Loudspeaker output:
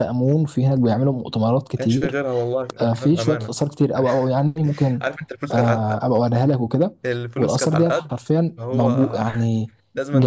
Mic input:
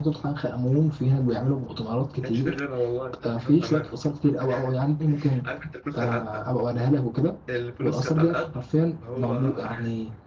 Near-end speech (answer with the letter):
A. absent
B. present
A